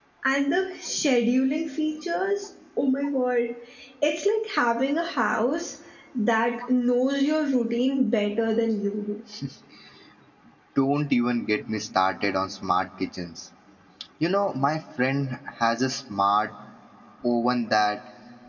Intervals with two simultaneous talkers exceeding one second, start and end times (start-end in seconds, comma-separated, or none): none